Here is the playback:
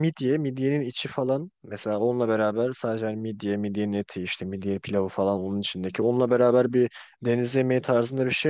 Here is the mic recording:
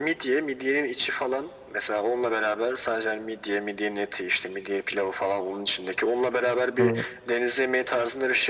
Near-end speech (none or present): present